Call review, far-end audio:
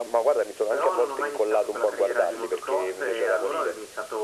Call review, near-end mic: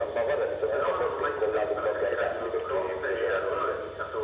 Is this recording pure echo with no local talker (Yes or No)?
Yes